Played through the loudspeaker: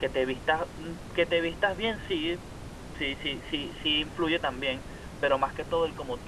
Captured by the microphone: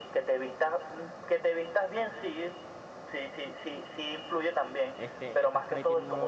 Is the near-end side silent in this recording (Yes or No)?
No